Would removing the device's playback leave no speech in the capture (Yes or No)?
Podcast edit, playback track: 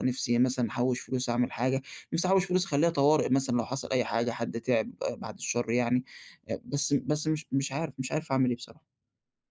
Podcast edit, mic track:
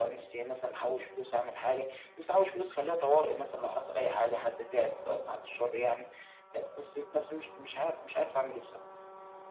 Yes